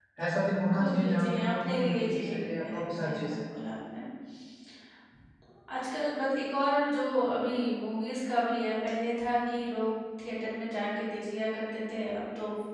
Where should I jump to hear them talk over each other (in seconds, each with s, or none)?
0.7 s